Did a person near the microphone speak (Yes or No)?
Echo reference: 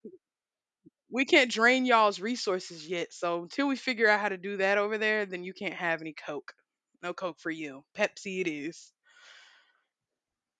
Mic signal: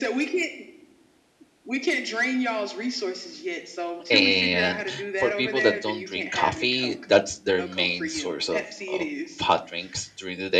Yes